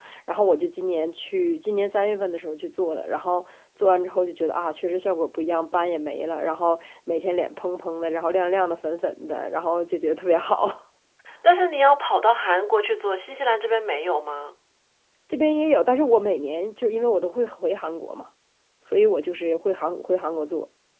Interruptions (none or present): none